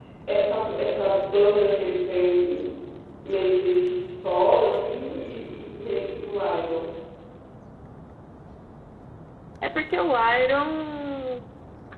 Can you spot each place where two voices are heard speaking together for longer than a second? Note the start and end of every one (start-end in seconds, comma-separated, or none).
none